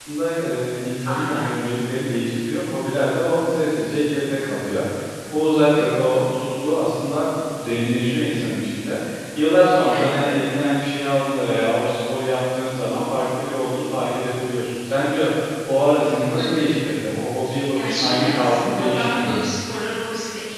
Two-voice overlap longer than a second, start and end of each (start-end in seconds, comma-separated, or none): 17.7-19.4